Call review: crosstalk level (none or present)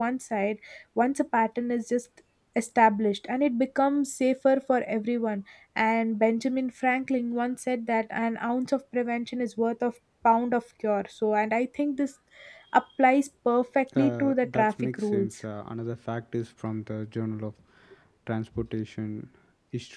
present